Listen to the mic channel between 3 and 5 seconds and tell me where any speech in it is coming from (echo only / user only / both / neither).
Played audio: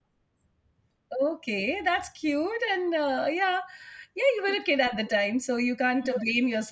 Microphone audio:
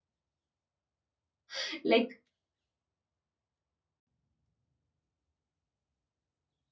neither